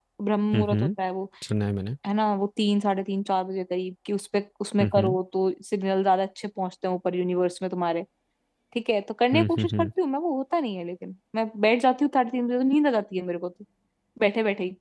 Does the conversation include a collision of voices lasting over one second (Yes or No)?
No